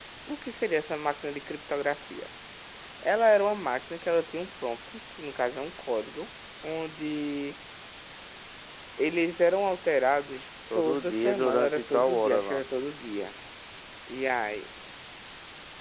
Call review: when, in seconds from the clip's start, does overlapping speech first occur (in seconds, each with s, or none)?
10.7 s